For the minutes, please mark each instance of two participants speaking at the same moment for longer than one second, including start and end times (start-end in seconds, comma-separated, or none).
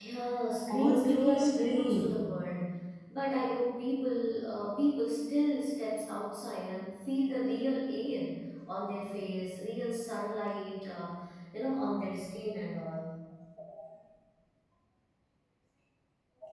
0.7-2.2